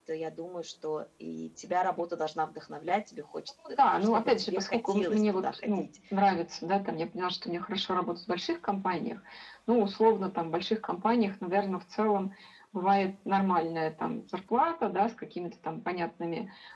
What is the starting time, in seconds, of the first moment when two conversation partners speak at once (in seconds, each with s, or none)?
3.6 s